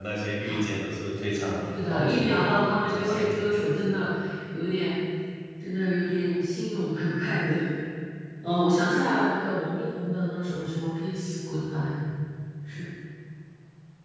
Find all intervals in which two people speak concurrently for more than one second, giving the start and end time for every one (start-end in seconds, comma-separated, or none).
1.7-3.7